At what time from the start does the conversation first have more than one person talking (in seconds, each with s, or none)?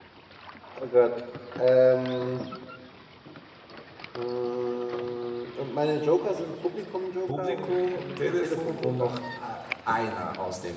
7.3 s